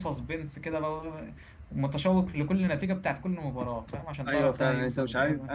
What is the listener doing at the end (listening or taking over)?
taking over